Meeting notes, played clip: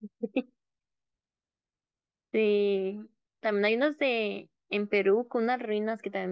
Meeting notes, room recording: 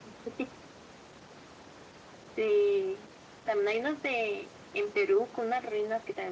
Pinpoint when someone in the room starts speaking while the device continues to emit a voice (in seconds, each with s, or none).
none